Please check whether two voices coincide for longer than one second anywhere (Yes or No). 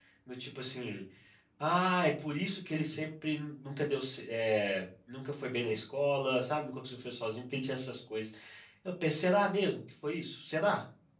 No